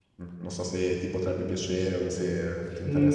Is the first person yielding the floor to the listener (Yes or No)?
Yes